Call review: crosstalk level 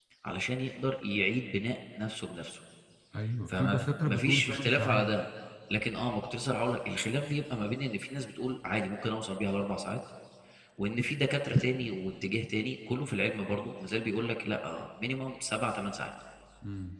present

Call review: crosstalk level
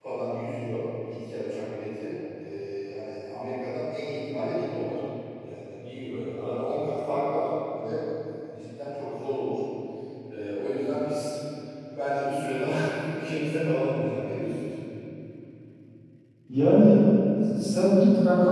none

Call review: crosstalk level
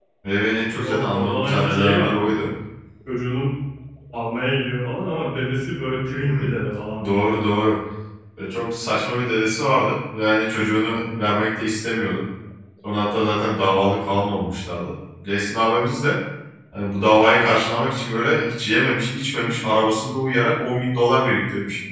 present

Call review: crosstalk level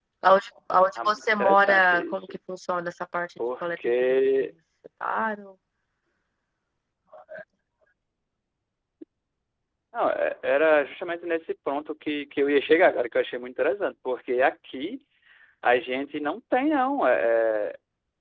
present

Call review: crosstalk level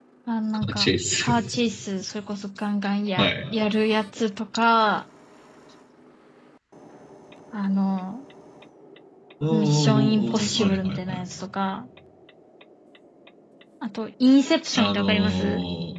present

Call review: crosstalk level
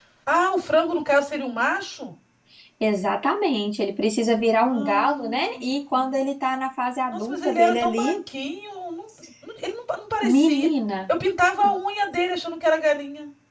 present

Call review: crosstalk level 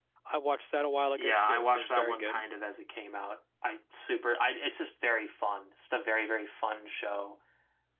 present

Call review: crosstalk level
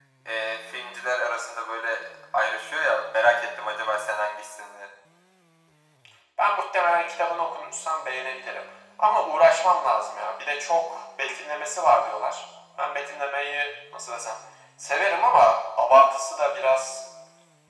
none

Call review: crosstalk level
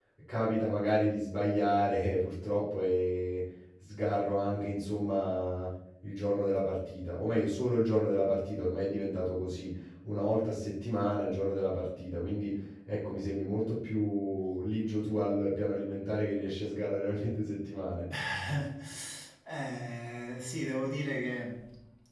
none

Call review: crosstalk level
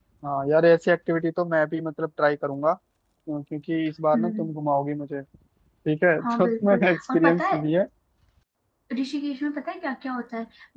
present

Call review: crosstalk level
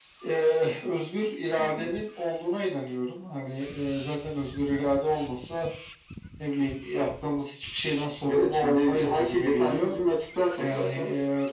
present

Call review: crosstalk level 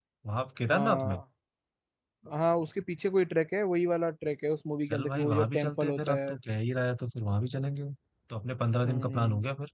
present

